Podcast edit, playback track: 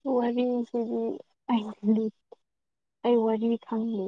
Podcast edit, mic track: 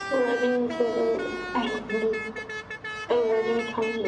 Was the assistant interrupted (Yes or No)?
No